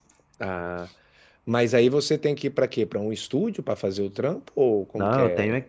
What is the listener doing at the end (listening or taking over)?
taking over